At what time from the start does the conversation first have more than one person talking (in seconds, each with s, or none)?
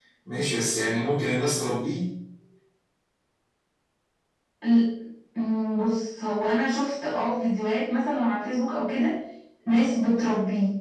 none